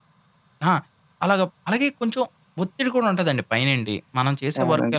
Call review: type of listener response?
listening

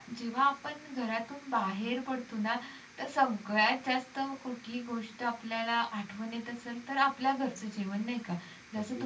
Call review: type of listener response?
listening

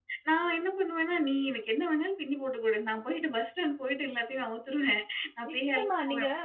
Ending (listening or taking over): taking over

